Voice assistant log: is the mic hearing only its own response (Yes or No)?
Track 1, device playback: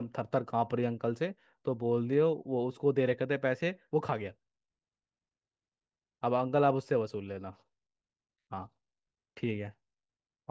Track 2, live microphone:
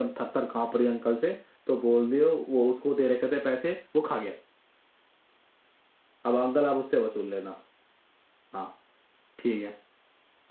Yes